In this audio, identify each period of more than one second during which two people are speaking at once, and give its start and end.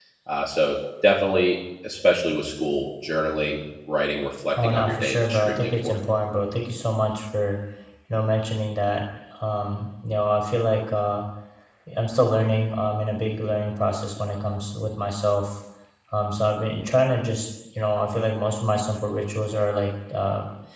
4.6-6.0

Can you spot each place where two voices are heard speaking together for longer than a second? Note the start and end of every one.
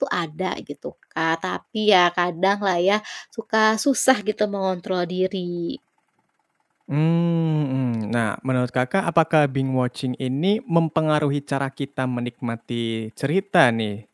none

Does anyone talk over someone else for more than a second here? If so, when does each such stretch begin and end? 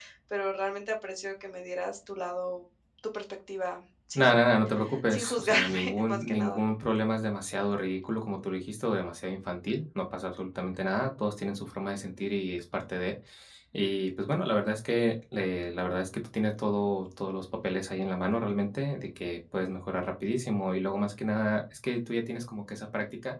5.1-6.6

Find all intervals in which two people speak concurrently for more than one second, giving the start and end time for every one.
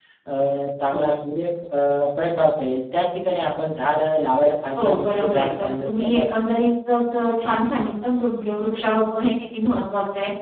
4.8-6.6

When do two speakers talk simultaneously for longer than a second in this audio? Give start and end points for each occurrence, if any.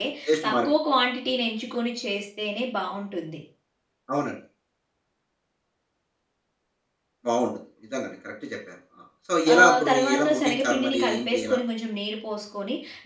9.5-11.6

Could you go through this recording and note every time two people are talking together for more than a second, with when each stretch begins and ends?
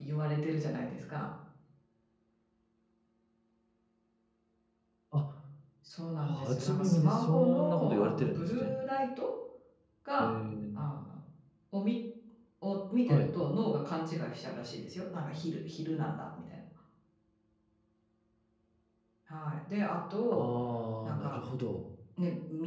6.3-8.7

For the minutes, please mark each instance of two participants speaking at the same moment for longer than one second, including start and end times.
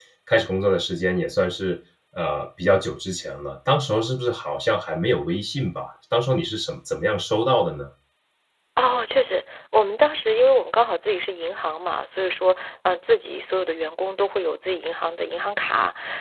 none

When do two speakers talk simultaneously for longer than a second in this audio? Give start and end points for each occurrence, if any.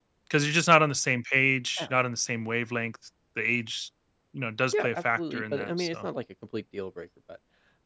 4.7-6.1

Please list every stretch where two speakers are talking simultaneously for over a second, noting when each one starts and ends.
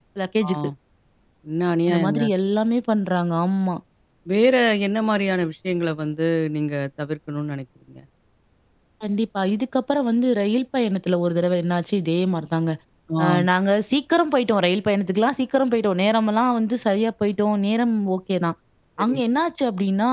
none

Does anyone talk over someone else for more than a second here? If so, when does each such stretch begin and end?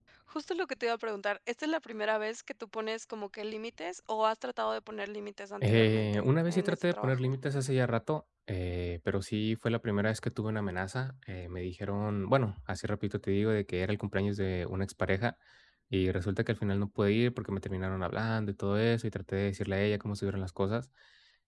5.6-7.3

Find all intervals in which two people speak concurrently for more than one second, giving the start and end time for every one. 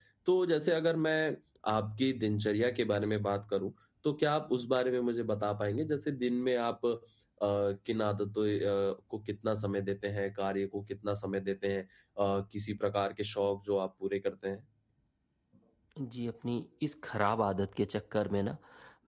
none

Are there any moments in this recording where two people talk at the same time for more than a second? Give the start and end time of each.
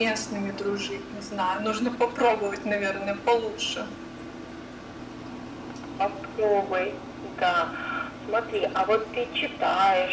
none

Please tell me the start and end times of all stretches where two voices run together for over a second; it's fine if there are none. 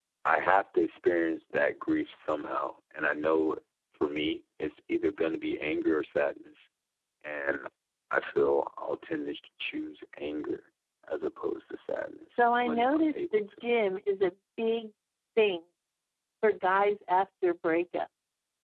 12.4-13.6

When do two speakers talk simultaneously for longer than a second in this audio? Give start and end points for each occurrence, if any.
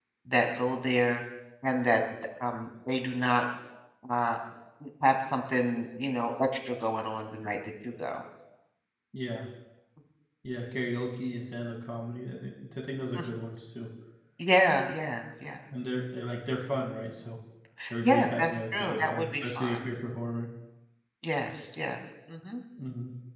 18.0-19.7

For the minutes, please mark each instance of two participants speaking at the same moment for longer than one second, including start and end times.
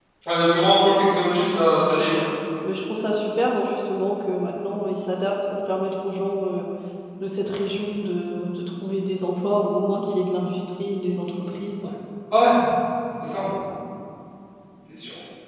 none

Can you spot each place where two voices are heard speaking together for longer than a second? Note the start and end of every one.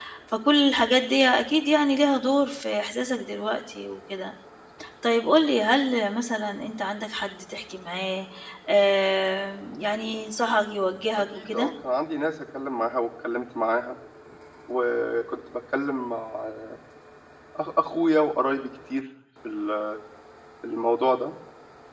none

